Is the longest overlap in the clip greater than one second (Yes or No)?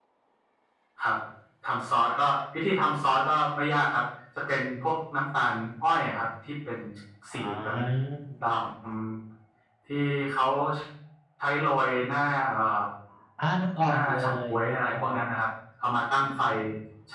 Yes